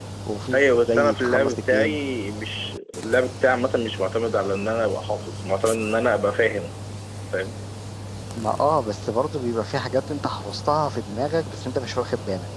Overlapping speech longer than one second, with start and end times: 0.5-2.0

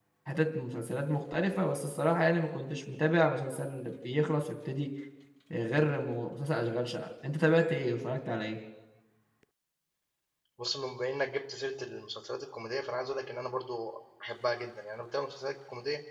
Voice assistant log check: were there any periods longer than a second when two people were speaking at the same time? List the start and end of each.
none

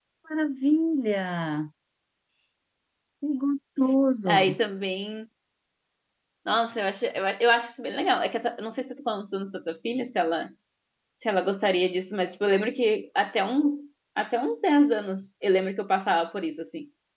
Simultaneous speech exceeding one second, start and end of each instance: none

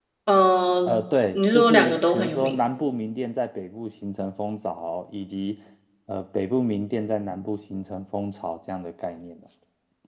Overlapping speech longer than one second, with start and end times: 1.3-2.5

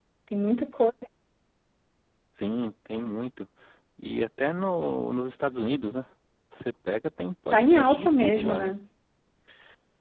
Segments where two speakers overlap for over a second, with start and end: 7.5-8.8

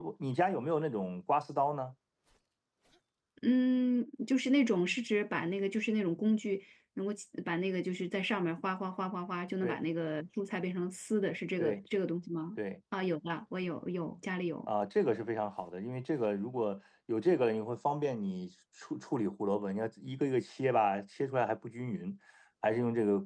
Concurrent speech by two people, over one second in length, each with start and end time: none

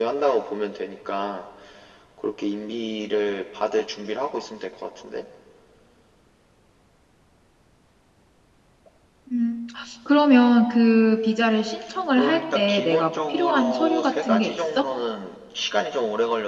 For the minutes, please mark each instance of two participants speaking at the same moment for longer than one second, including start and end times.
12.2-14.6

